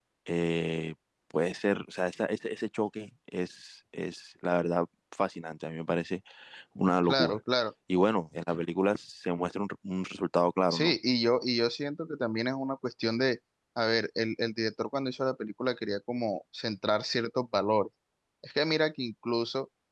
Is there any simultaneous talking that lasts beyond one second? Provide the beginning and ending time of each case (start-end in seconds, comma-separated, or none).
none